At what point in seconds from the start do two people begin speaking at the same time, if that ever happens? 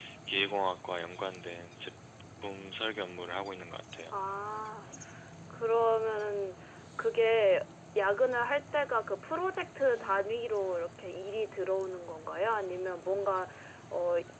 none

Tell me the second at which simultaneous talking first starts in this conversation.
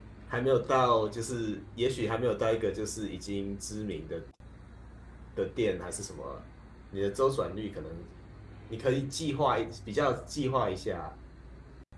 none

